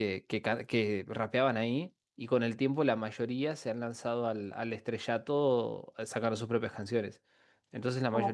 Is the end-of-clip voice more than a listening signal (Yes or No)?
No